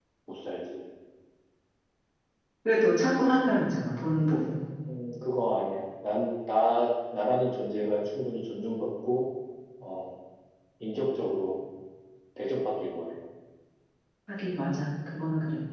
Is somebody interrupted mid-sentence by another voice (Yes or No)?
No